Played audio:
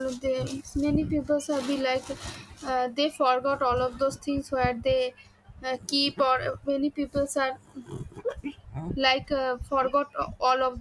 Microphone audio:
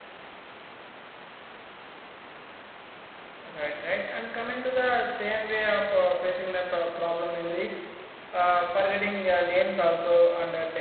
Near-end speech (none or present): present